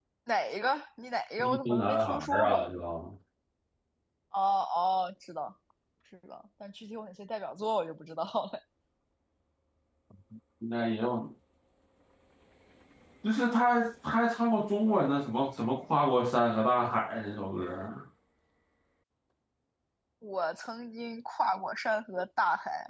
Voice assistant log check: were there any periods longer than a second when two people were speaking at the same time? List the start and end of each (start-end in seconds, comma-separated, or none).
1.4-2.7